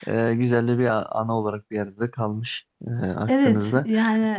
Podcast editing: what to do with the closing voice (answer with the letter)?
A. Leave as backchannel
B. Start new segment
B